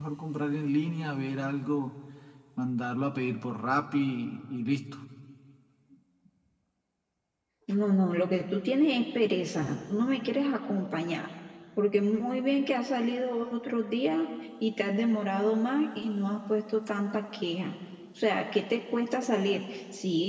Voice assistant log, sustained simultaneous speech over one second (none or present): none